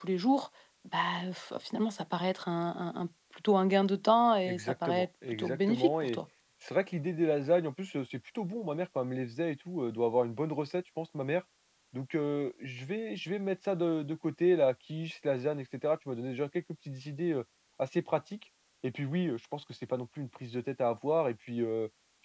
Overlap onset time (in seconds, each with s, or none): 4.5 s